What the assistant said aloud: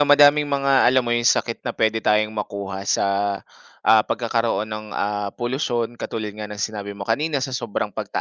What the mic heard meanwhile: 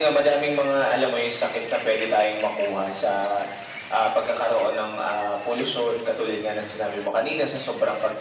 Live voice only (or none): none